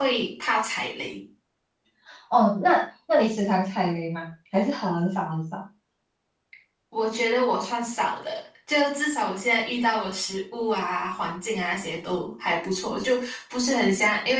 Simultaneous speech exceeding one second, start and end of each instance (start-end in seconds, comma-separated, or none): none